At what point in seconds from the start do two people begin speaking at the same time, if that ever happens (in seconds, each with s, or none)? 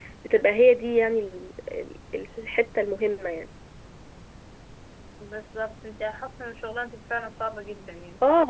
none